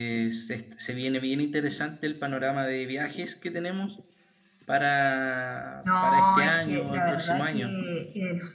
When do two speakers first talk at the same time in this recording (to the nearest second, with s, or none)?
6 s